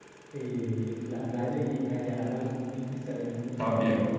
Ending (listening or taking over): taking over